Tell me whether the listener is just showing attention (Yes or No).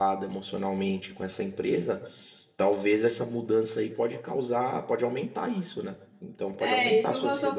No